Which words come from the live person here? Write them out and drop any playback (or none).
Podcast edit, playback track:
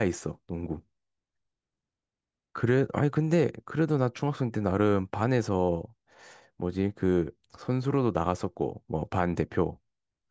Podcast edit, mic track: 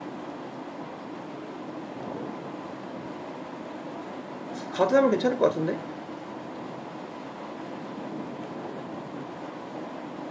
가드 하면 괜찮을 것 같은데?